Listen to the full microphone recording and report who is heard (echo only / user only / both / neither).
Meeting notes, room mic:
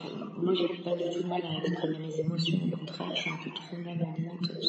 echo only